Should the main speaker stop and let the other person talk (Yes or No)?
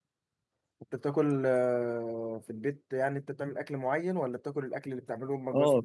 Yes